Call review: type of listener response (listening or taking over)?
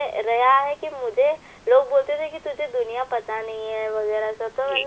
taking over